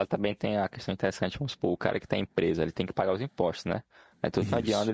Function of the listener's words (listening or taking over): listening